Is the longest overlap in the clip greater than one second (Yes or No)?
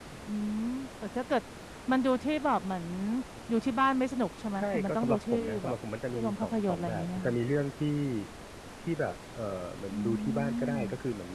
Yes